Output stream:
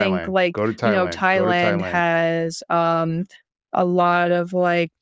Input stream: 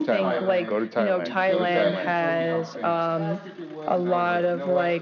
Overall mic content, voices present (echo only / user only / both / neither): both